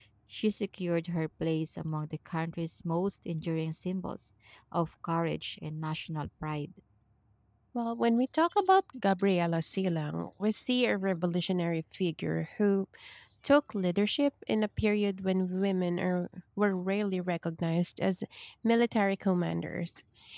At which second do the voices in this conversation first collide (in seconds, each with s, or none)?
none